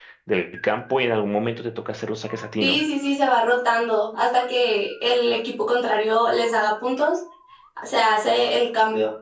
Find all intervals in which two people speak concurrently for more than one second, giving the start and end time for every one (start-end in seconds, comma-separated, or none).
none